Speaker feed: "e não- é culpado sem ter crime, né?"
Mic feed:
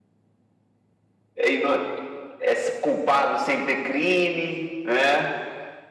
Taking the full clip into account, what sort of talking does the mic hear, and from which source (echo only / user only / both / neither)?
echo only